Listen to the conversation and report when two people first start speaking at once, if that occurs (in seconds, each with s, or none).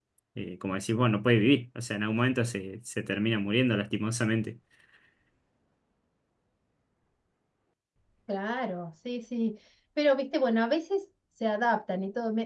none